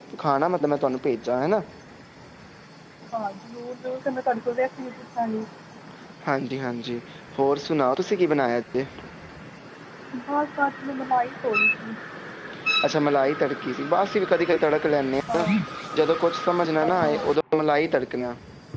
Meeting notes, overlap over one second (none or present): none